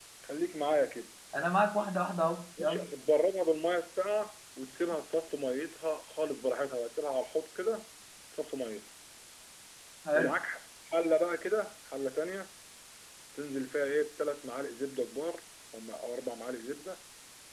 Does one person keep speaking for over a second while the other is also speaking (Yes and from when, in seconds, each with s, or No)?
No